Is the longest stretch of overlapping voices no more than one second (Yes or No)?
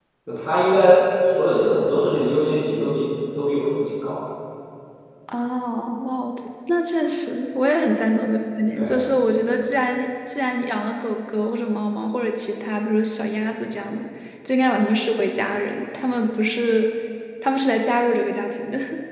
Yes